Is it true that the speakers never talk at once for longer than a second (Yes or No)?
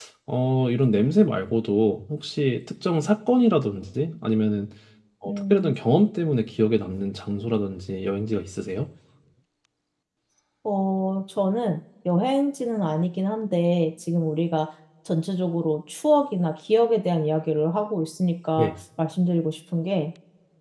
Yes